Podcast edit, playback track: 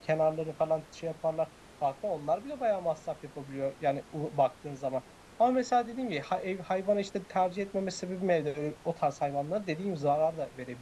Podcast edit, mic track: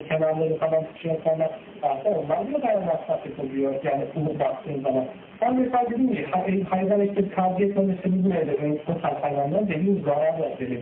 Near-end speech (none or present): none